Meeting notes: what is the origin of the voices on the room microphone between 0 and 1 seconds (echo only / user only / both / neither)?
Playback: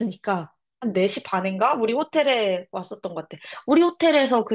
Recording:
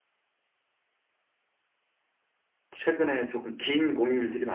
neither